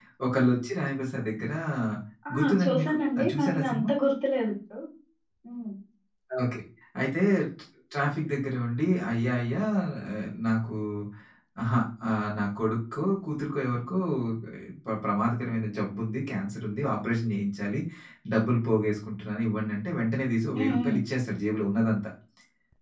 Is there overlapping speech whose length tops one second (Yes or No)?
Yes